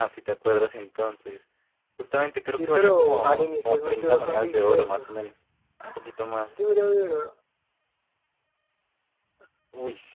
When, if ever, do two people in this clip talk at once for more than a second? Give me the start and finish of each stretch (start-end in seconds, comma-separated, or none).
2.5-5.0